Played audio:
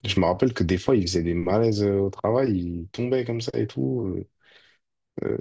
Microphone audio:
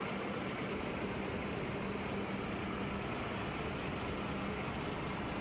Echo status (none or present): none